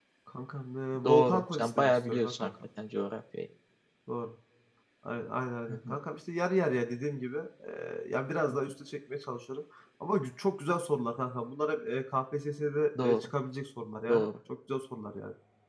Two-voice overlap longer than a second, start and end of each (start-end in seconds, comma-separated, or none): 1.0-2.5